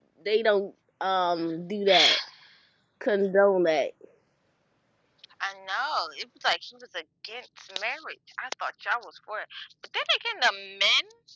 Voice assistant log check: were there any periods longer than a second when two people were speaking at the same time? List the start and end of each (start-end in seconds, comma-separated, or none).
none